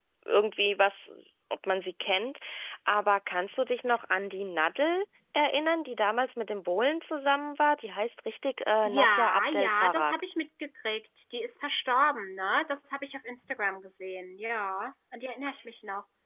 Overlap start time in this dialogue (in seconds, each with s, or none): 8.8 s